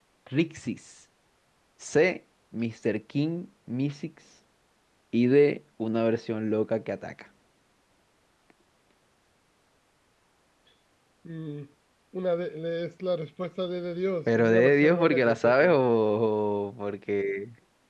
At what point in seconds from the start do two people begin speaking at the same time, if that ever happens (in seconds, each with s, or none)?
14.3 s